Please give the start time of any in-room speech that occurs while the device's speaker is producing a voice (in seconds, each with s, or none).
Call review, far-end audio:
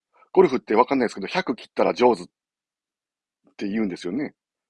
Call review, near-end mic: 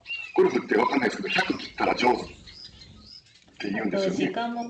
3.7 s